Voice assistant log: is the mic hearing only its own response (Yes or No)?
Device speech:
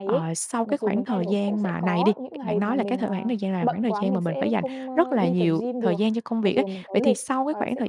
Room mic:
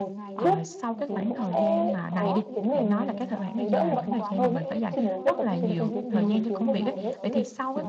No